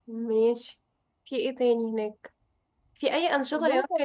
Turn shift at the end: No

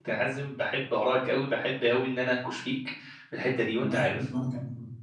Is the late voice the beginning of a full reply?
Yes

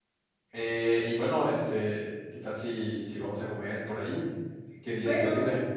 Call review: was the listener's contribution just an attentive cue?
No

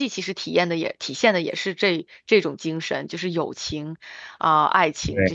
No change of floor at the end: No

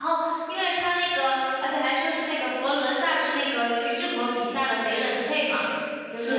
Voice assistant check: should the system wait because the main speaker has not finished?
No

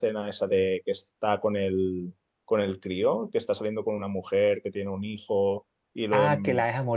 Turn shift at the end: Yes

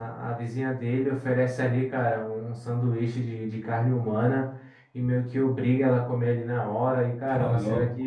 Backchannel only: Yes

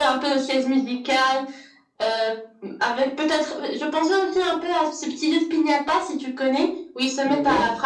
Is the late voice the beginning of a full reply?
No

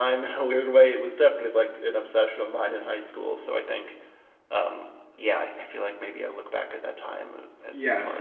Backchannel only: No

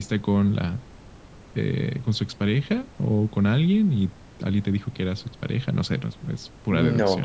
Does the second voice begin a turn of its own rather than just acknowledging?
Yes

